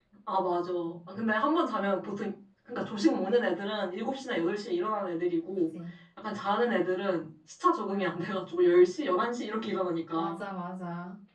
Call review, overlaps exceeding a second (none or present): none